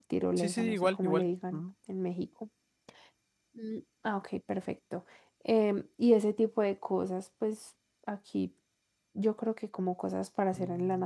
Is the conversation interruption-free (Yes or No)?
No